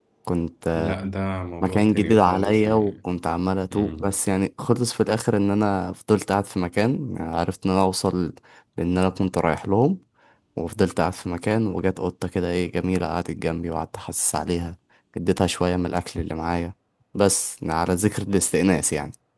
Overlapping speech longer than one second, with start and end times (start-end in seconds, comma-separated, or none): 1.6-2.9